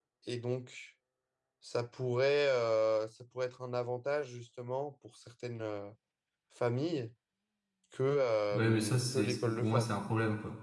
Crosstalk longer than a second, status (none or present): present